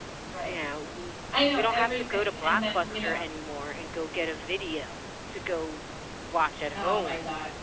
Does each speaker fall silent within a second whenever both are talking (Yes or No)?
No